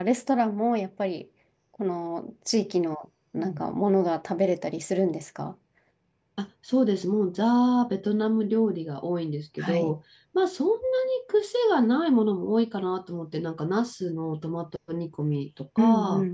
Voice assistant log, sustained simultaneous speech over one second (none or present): none